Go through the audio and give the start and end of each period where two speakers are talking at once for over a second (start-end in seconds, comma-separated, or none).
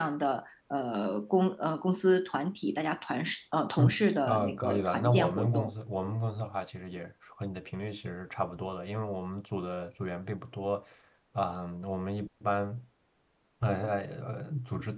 3.8-5.7